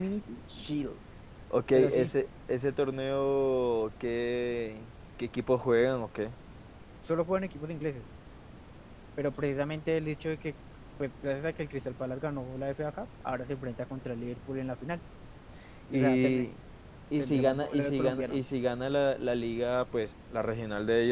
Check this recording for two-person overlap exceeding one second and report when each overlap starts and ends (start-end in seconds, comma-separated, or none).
17.2-18.4